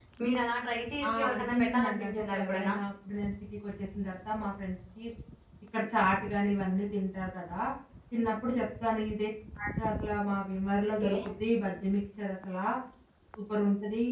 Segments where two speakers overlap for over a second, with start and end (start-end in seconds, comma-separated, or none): 1.1-2.7